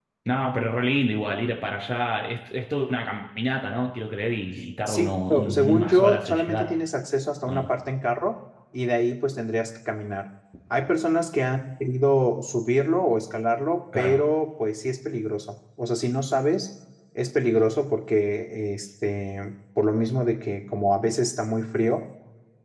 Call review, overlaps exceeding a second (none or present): present